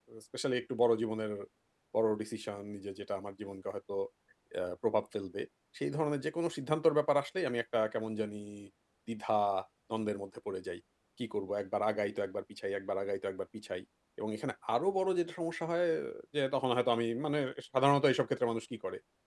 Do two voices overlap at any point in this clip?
No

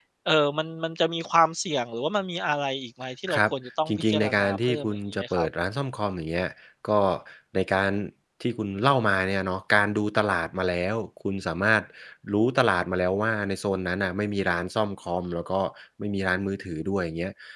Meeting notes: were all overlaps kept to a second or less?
No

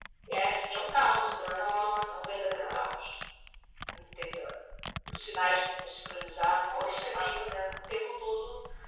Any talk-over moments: Yes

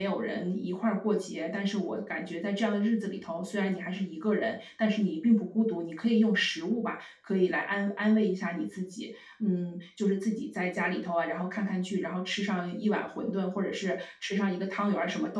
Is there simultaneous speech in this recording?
No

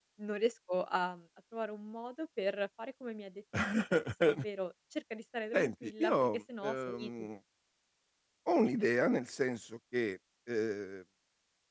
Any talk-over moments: Yes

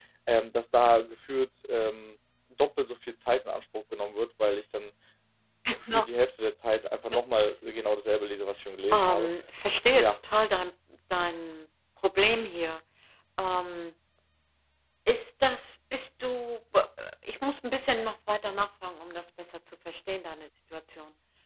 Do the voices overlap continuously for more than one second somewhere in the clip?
No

